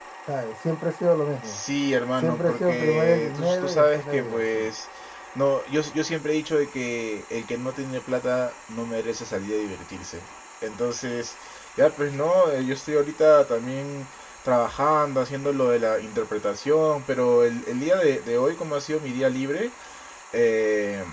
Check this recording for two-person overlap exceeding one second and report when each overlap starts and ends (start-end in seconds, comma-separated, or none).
2.2-4.7